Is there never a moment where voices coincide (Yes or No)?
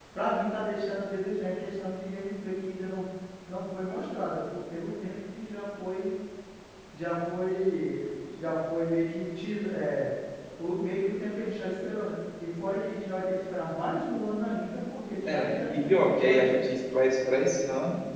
No